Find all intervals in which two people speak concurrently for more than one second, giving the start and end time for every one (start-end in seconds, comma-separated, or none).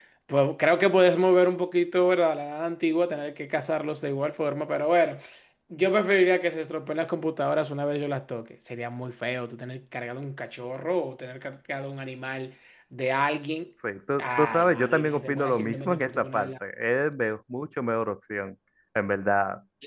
14.2-16.5